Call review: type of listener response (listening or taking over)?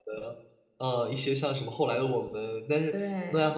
listening